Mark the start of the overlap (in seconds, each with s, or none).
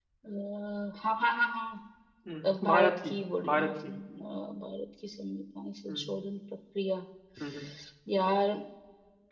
2.4 s